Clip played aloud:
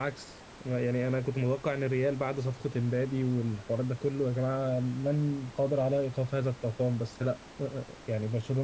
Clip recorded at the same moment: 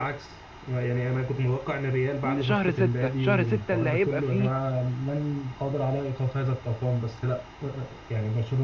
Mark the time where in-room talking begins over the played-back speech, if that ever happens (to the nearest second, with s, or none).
2 s